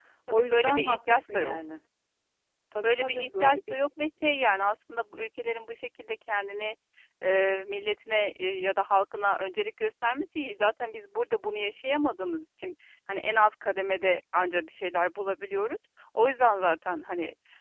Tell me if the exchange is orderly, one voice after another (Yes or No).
No